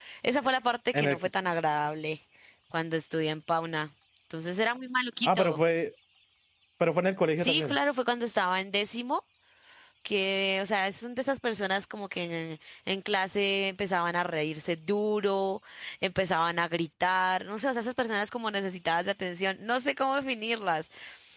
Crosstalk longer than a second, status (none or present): none